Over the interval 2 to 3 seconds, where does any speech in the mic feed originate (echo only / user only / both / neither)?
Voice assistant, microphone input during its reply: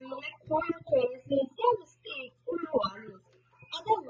echo only